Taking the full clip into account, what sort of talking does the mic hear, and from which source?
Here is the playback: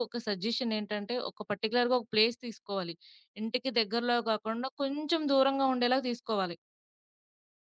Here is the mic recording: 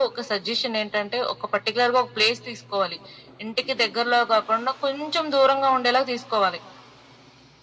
echo only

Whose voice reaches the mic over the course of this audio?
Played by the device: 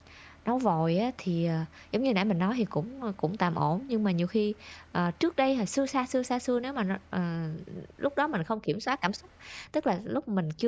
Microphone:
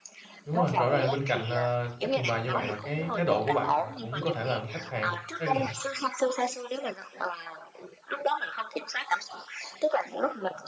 both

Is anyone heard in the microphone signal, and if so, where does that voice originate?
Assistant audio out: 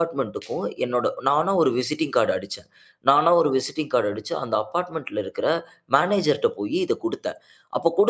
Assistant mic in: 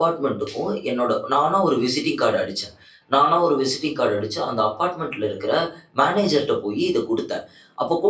echo only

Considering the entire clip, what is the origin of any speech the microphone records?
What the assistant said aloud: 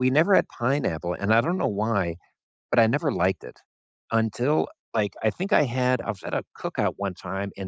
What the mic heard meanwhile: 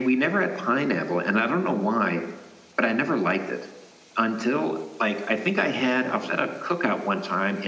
echo only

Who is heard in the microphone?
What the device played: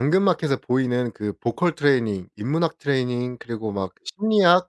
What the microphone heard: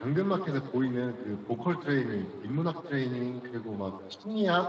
echo only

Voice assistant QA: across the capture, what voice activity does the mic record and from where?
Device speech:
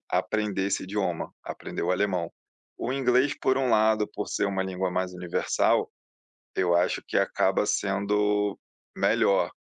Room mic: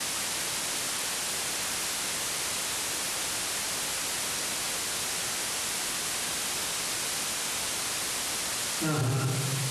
user only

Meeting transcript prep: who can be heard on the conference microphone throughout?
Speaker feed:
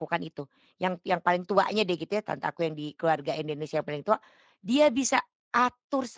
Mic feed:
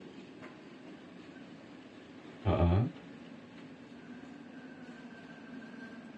user only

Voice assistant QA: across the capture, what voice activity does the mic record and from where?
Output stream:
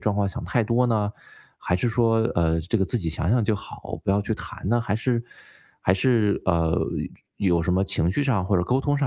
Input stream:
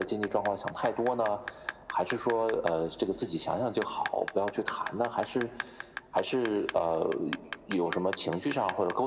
echo only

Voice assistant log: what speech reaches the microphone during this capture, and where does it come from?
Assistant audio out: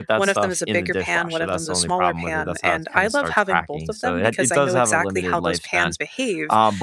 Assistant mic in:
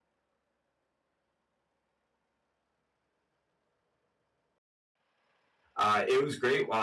user only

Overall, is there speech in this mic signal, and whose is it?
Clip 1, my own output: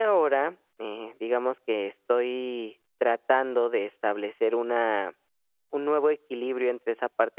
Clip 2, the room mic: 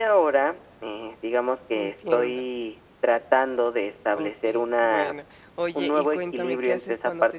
both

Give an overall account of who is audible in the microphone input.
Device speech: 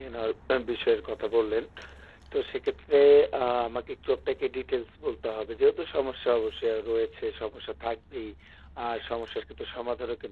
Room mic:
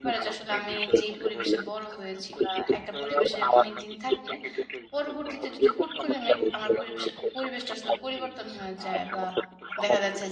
both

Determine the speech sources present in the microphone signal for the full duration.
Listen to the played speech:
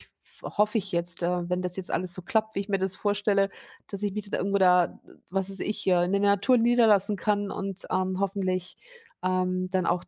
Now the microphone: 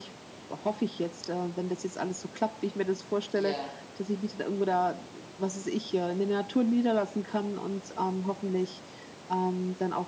both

